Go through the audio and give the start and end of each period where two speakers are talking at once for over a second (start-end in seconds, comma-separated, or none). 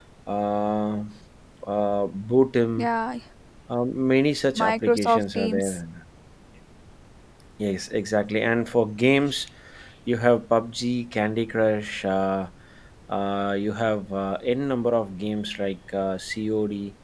4.6-5.8